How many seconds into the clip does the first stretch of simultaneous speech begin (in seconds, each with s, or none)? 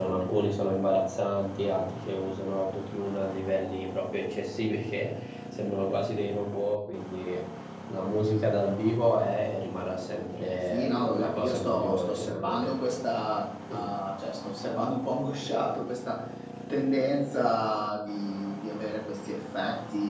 10.7 s